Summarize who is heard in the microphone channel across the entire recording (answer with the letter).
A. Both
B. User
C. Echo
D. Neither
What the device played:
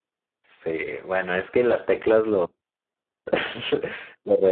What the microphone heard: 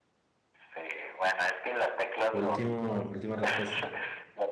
A